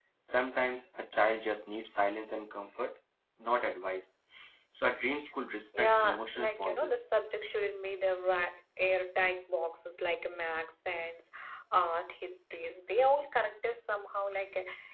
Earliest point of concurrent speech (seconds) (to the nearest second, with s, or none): 6 s